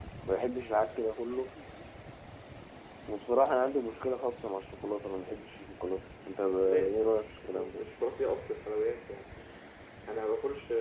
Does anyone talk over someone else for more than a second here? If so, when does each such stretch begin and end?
6.5-7.8

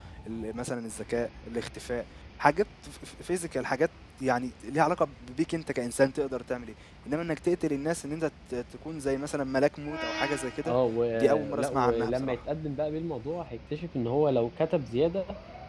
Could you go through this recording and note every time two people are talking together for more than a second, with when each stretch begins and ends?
11.1-12.4

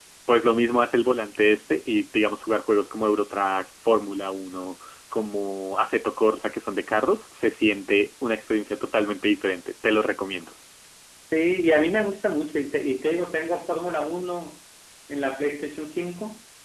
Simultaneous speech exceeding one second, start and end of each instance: none

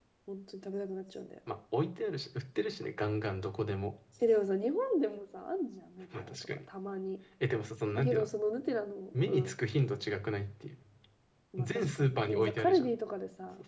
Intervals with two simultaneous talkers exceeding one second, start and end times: 11.6-13.0

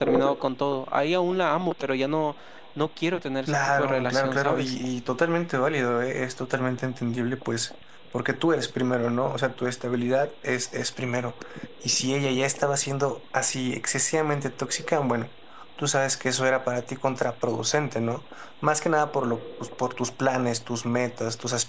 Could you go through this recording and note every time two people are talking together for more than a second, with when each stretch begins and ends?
3.5-4.7

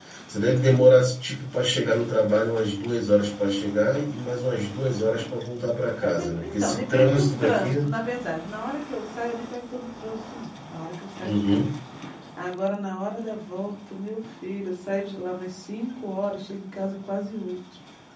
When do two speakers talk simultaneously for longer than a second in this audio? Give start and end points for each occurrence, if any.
6.0-7.9

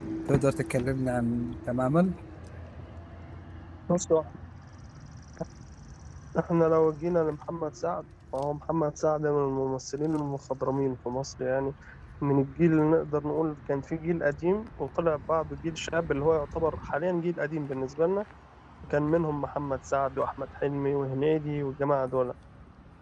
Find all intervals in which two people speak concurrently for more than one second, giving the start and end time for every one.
none

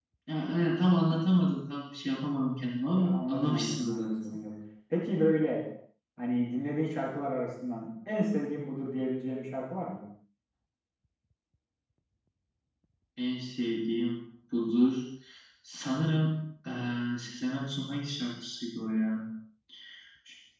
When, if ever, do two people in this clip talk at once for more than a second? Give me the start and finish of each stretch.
3.0-4.2

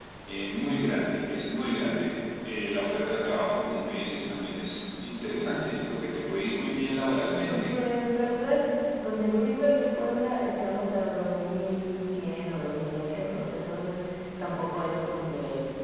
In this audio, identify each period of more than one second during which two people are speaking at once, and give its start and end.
none

